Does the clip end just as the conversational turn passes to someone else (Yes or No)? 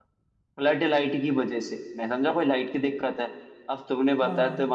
No